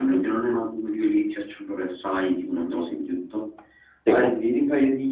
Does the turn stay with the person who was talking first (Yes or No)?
Yes